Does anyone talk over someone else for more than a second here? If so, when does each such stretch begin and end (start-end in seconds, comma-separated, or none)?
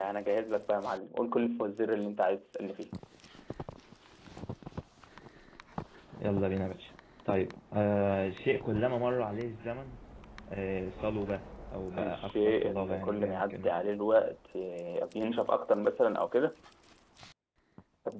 12.0-13.7